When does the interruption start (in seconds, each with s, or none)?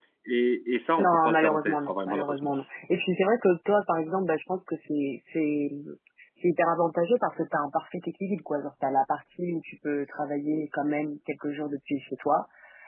1.0 s